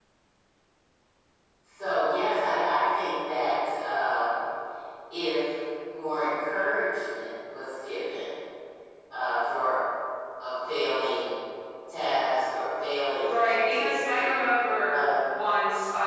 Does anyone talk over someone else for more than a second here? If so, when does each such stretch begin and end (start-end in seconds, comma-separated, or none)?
13.2-14.4